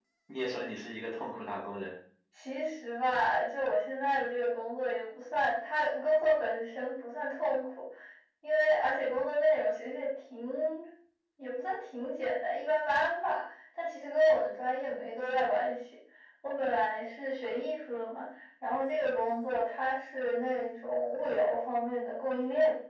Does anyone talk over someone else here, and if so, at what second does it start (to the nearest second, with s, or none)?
none